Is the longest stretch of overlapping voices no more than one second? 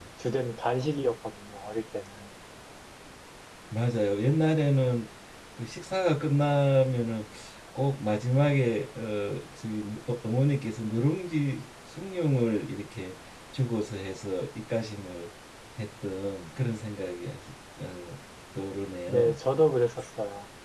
Yes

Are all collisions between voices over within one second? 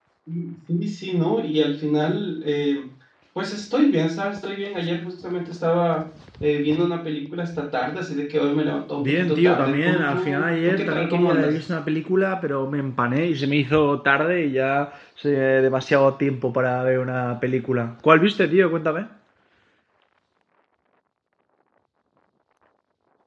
No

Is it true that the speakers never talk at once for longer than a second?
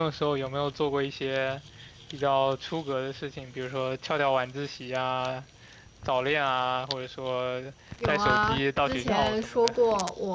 No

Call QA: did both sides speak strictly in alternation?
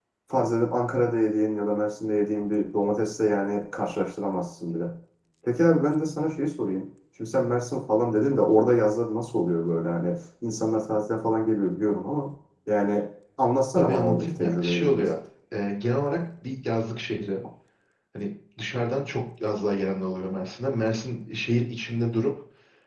No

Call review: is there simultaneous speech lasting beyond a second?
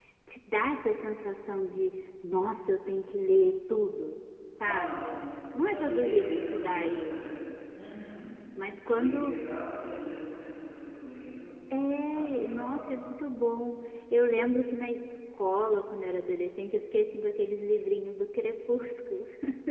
Yes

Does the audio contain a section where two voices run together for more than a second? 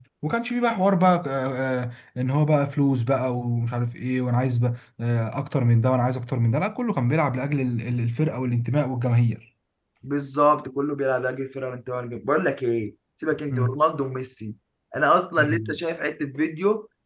No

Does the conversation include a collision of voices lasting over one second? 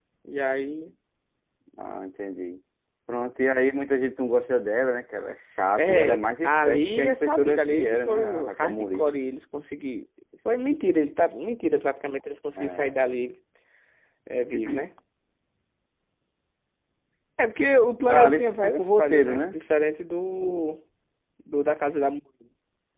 Yes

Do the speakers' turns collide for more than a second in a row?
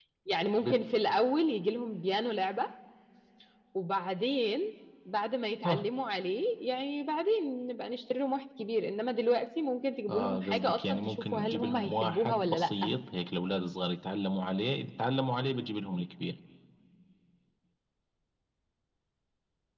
Yes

